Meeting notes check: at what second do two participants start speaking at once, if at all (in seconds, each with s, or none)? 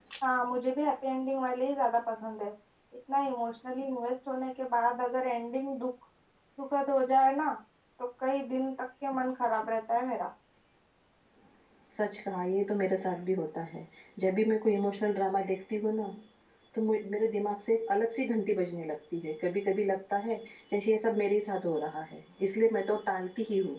none